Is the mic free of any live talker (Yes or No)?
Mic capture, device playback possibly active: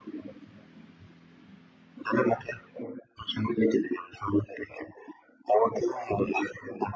Yes